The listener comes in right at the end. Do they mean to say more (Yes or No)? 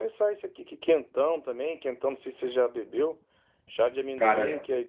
No